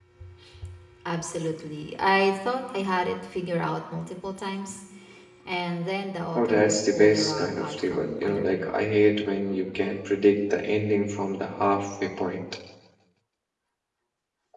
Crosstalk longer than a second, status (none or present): present